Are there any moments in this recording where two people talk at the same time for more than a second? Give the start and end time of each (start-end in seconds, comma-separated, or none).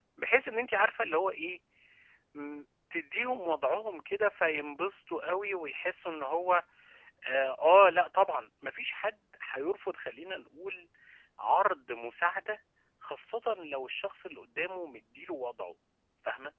none